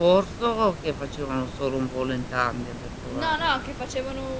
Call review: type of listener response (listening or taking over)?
taking over